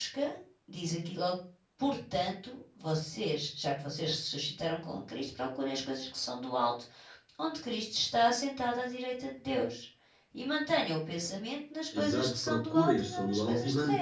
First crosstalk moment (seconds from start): 11.9 s

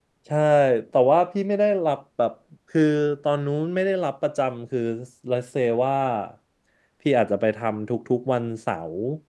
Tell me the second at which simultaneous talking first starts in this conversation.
none

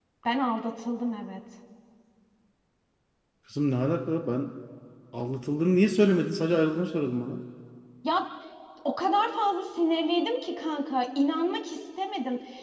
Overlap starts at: none

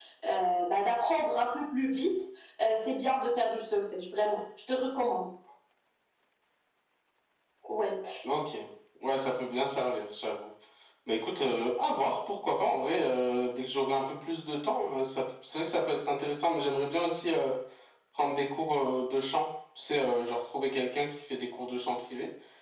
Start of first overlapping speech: none

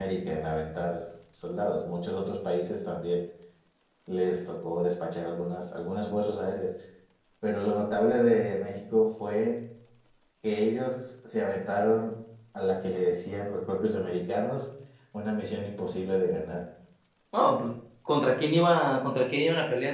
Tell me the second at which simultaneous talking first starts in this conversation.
none

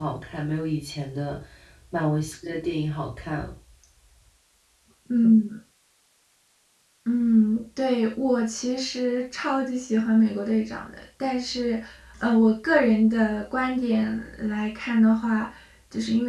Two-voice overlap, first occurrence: none

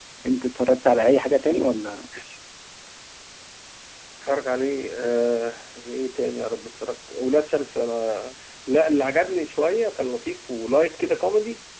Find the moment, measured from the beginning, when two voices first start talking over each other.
none

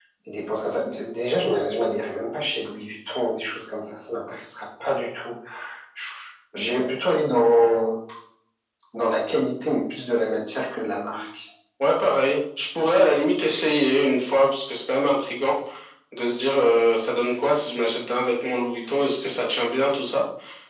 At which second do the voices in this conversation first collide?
none

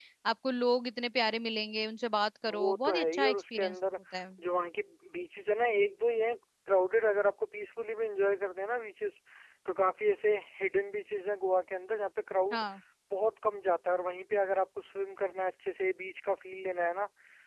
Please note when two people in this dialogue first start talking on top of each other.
2.5 s

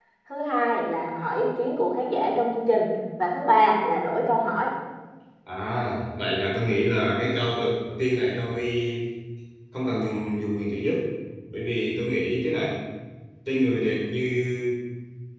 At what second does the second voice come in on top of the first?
none

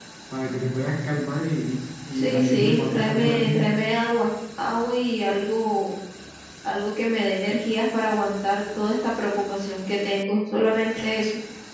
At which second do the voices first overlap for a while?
2.1 s

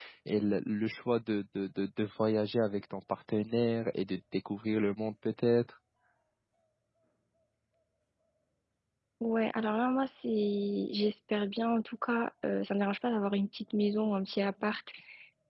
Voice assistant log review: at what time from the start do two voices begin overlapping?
none

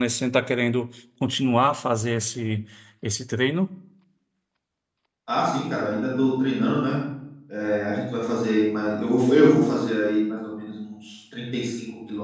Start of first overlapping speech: none

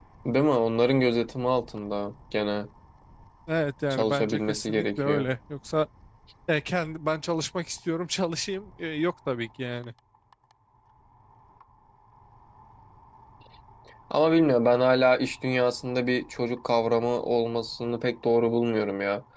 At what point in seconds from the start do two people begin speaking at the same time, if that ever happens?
3.9 s

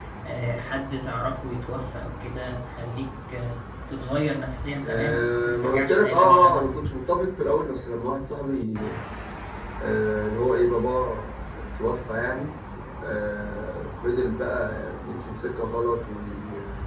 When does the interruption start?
4.8 s

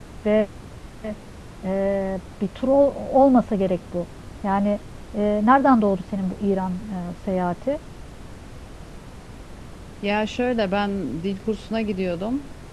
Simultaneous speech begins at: none

